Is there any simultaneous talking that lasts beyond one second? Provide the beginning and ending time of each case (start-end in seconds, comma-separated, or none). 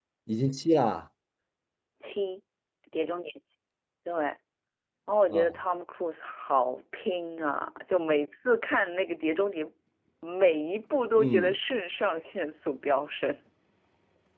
none